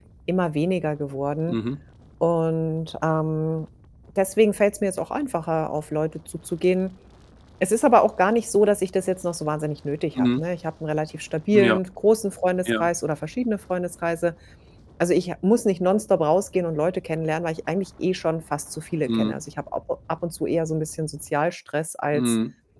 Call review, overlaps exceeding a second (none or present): none